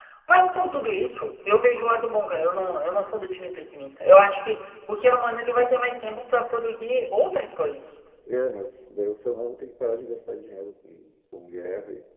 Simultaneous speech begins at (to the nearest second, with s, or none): none